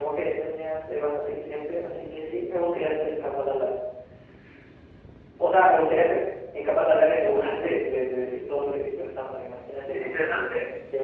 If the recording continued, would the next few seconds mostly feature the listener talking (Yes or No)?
Yes